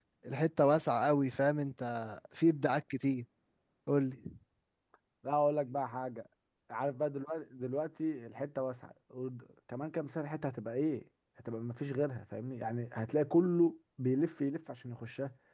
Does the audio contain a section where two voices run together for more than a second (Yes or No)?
No